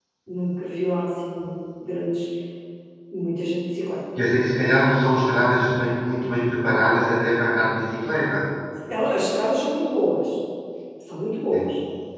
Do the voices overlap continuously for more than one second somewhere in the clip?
No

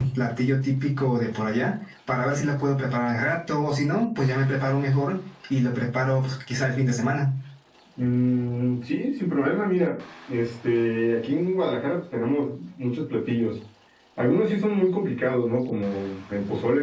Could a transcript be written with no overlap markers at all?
Yes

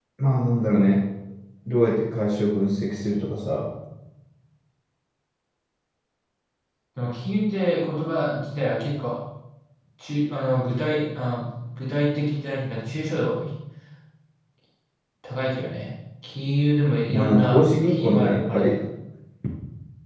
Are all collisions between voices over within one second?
No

